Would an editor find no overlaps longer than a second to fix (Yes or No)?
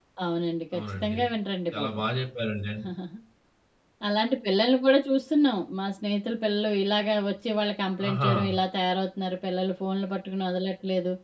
Yes